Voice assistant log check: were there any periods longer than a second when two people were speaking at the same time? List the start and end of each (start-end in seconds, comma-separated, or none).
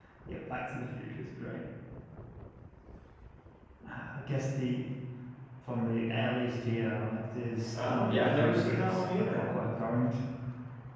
7.7-9.4